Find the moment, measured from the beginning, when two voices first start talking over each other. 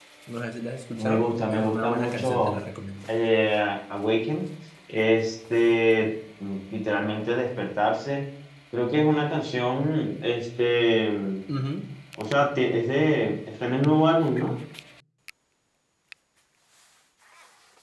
1 s

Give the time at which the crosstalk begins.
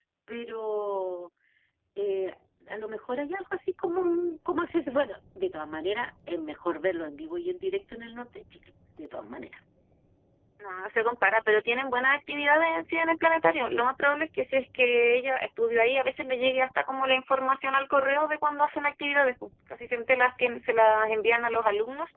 none

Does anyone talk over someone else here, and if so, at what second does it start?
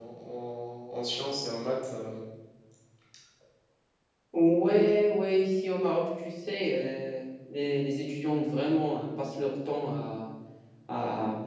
none

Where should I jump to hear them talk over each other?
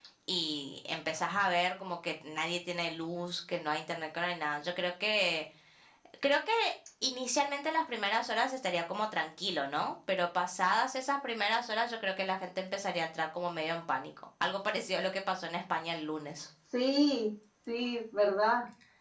none

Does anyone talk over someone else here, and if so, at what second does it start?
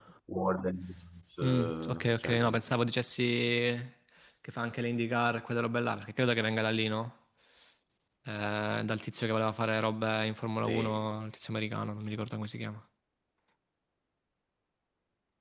1 s

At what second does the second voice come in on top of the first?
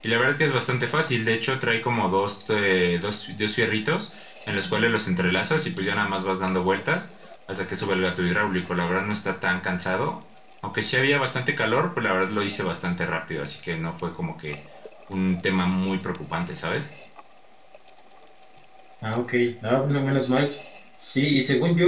none

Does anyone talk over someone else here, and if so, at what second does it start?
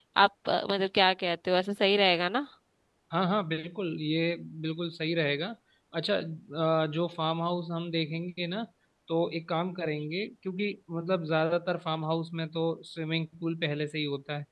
none

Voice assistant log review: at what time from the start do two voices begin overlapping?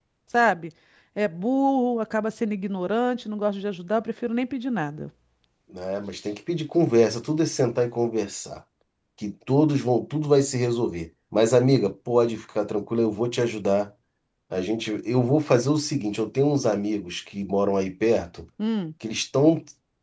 none

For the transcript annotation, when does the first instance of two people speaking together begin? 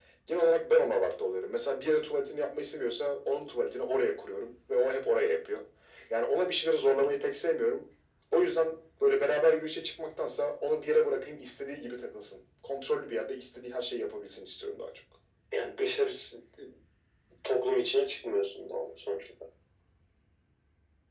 none

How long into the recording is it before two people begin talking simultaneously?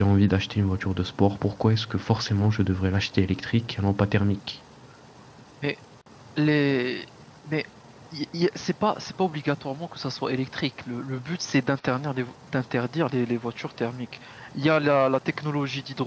none

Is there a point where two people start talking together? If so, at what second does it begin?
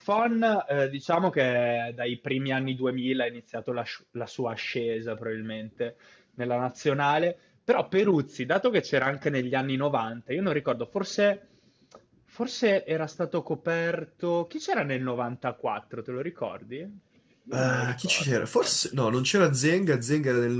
18 s

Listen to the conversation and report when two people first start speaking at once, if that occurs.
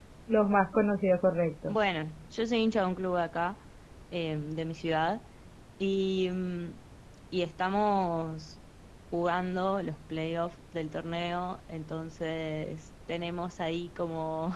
none

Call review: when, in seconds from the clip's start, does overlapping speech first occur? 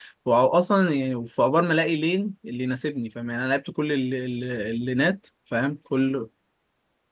none

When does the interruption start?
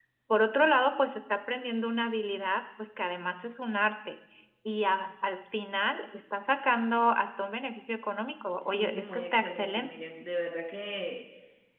9 s

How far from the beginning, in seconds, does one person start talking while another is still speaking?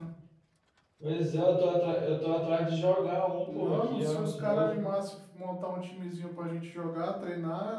3 s

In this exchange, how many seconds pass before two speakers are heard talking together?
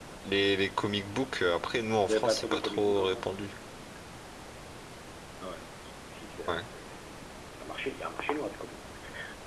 2 s

